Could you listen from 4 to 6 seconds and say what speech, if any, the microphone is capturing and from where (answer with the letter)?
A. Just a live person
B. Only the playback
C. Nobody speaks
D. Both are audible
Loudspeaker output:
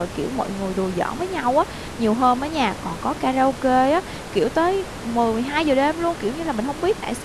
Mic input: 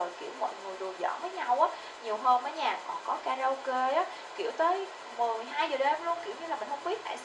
B